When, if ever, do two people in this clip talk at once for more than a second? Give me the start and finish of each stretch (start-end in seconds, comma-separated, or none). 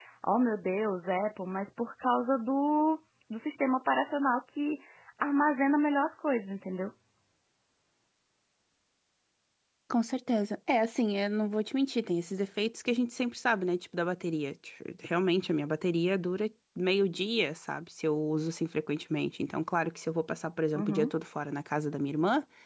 none